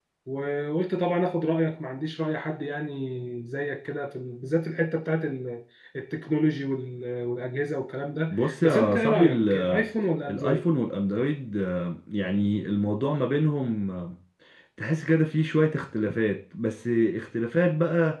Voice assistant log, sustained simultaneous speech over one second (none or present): present